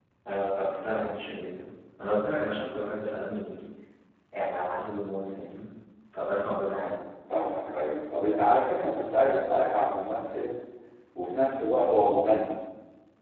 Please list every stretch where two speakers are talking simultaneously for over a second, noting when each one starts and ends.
none

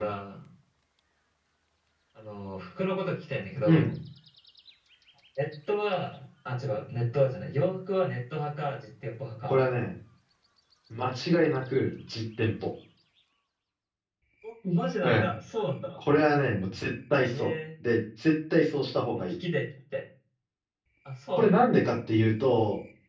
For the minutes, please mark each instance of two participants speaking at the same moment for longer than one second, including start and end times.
none

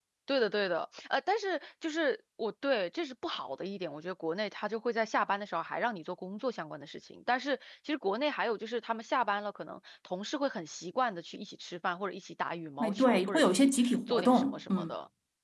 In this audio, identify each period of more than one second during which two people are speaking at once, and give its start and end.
12.8-14.9

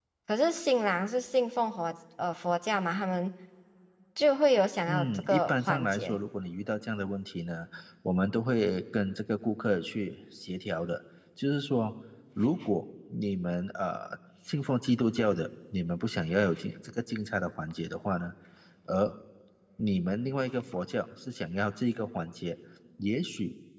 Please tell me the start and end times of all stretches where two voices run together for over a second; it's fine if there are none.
4.9-6.2

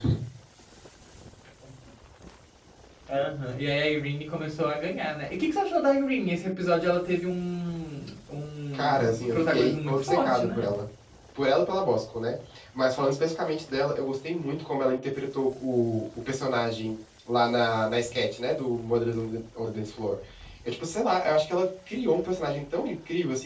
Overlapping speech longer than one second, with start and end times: 8.7-10.7

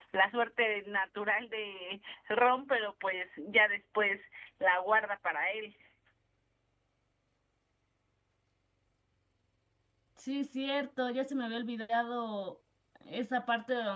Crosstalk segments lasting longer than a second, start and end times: none

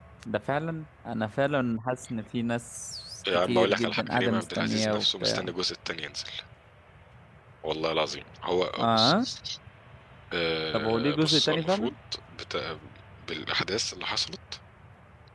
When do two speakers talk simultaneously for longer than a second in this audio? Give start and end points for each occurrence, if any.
3.3-5.5, 10.7-11.9

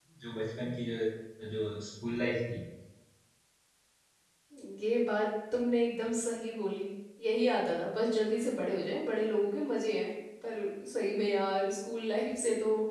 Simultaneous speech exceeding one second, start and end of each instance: none

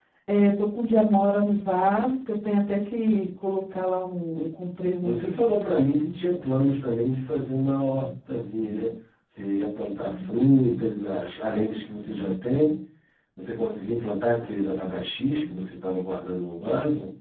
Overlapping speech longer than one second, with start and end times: none

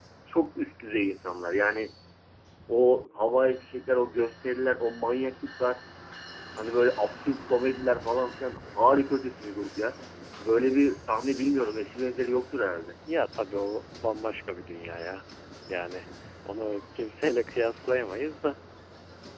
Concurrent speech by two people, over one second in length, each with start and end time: none

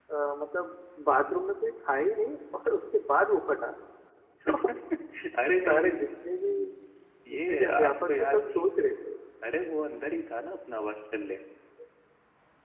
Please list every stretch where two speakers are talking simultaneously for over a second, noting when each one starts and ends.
7.3-8.6

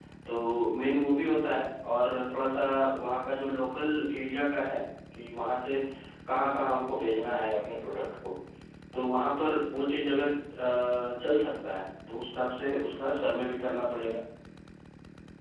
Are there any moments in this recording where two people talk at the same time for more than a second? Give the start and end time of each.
none

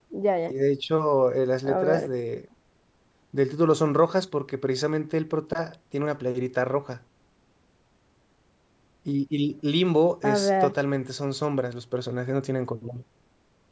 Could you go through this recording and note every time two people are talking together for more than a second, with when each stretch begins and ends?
none

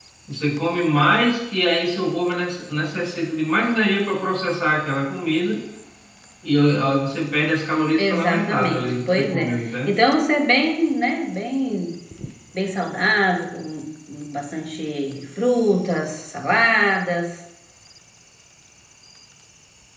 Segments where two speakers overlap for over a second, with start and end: 8.0-10.0

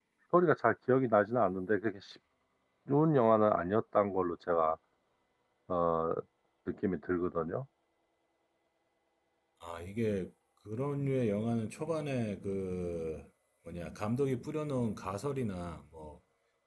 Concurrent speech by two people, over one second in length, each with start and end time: none

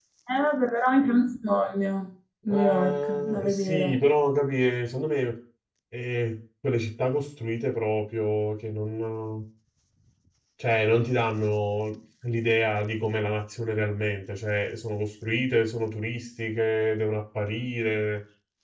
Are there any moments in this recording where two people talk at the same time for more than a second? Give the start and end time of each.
2.5-4.0

